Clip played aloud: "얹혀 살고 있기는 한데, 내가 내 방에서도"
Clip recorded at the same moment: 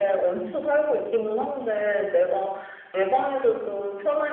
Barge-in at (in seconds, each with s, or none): none